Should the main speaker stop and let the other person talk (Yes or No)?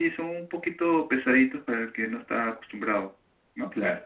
No